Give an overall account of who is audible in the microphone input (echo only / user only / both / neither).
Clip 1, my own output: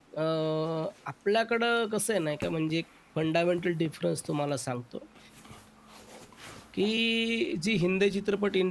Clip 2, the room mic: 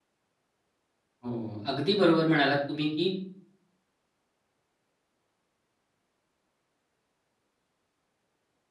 user only